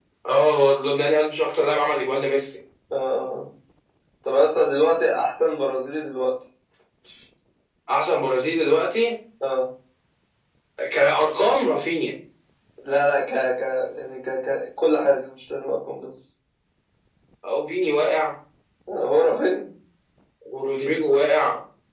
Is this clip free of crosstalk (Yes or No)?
Yes